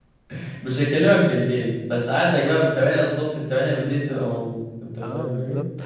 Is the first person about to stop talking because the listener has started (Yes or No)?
Yes